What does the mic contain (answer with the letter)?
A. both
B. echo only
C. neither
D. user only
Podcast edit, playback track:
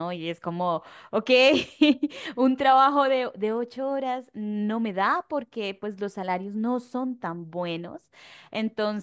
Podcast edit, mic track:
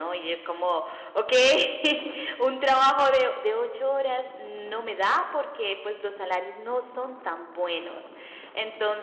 B